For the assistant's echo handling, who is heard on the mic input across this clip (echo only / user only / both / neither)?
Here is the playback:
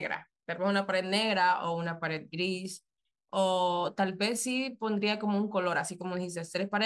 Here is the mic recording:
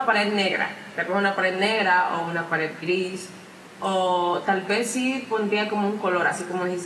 echo only